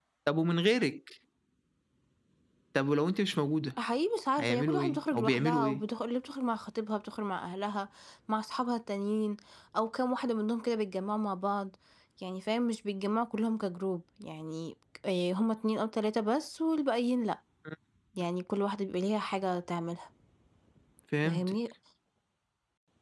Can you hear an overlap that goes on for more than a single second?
Yes, from 4.4 s

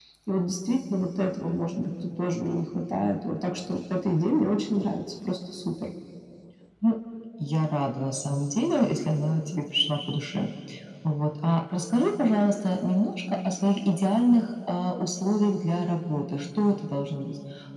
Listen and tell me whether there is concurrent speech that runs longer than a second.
No

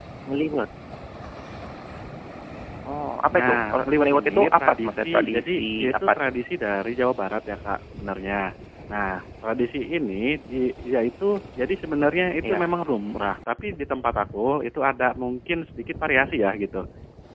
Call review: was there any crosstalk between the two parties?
Yes, from 3.3 s

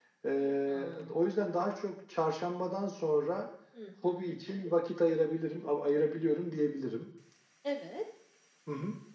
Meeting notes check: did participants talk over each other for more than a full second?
No

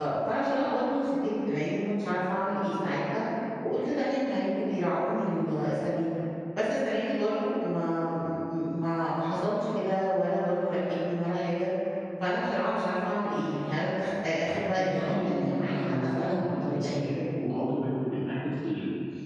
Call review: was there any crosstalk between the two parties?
Yes, from 14.8 s

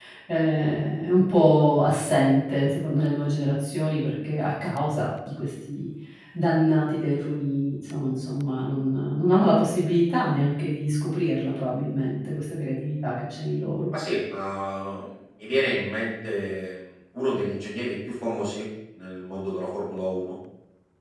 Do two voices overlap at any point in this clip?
No

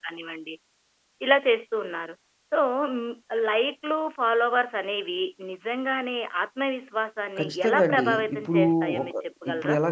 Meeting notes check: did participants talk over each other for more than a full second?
Yes, from 7.4 s

